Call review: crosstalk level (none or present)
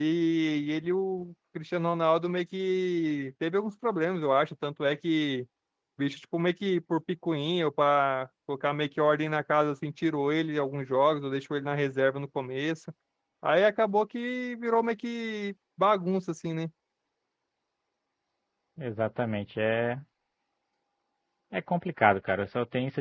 none